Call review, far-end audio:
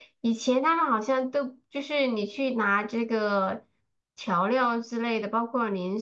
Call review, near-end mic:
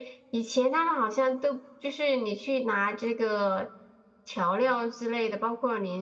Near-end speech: none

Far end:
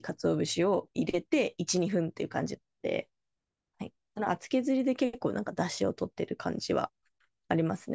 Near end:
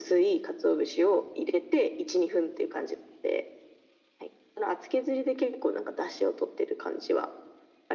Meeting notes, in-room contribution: none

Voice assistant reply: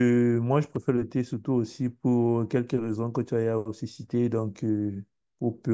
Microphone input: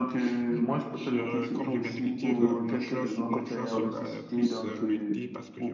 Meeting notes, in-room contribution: present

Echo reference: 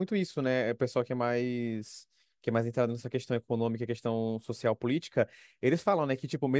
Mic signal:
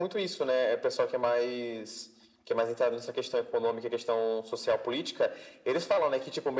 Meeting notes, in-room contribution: none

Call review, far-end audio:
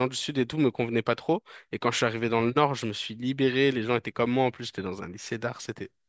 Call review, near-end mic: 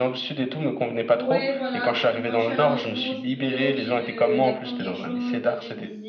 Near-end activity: present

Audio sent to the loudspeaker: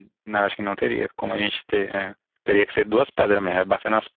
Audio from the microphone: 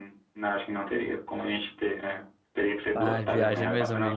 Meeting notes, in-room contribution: present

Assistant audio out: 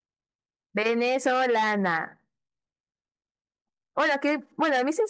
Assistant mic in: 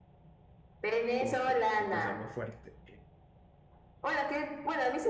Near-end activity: present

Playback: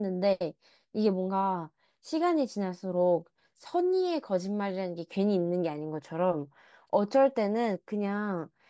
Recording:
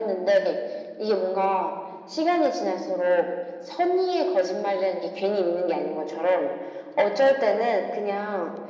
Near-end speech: none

